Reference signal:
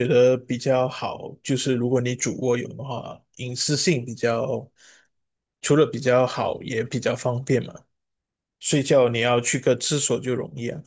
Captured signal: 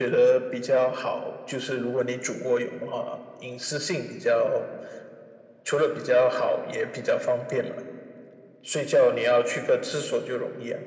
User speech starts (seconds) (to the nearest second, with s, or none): none